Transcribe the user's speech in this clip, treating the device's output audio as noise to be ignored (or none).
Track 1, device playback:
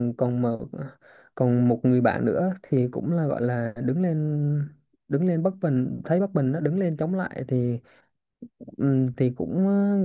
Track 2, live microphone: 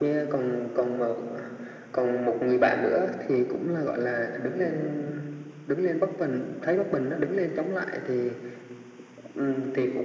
none